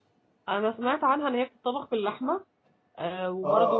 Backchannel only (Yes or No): No